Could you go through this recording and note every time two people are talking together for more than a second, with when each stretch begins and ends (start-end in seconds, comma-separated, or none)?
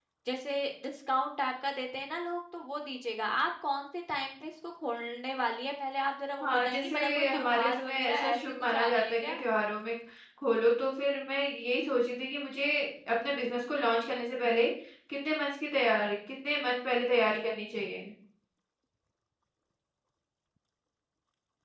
6.4-9.4